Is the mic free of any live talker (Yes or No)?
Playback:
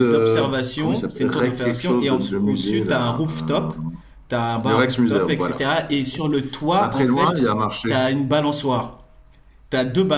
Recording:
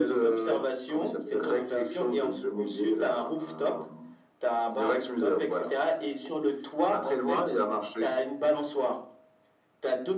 Yes